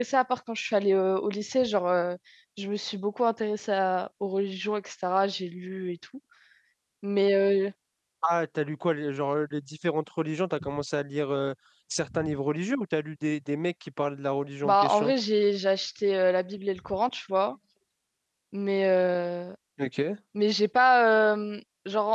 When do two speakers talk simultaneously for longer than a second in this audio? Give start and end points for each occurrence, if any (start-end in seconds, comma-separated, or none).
none